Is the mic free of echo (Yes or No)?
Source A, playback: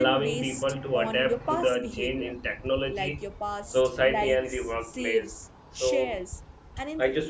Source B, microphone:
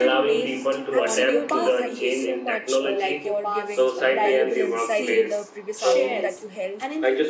No